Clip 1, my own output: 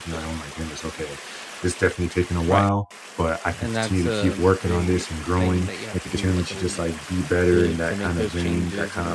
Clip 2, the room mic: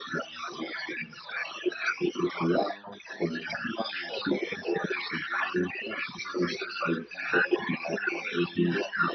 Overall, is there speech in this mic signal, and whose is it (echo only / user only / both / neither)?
echo only